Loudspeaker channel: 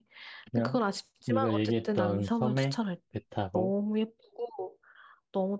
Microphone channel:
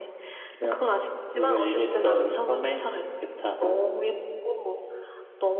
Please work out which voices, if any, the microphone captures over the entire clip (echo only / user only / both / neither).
echo only